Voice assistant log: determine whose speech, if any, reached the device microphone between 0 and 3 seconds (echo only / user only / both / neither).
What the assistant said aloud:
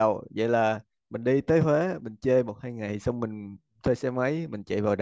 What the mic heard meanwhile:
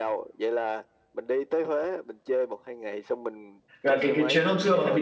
echo only